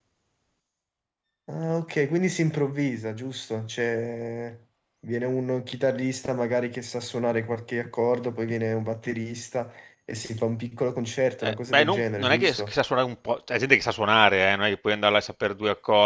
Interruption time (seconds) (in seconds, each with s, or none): 11.4 s